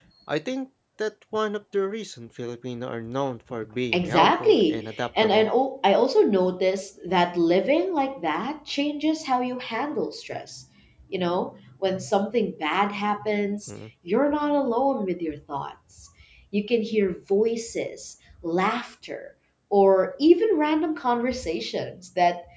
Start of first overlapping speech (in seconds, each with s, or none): 3.9 s